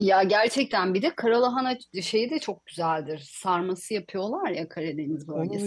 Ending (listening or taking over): taking over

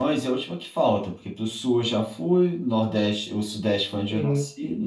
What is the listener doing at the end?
listening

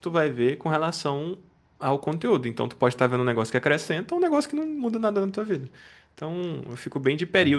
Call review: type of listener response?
listening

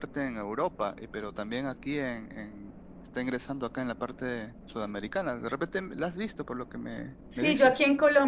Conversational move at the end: taking over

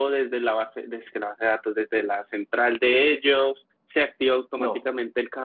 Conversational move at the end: listening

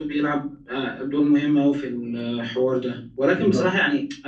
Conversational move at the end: listening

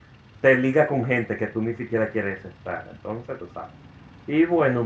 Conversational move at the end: listening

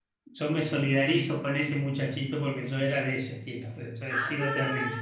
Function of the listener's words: taking over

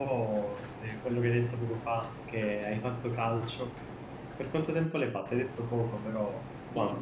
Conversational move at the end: taking over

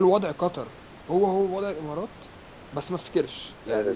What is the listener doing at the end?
taking over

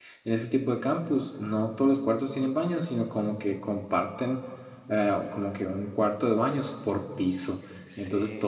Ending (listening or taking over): listening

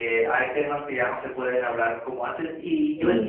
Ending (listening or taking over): listening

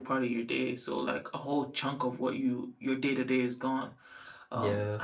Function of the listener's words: listening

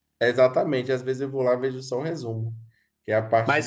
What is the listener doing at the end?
taking over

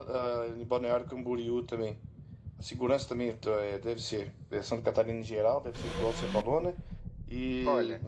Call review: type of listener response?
listening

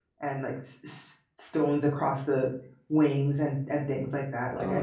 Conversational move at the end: taking over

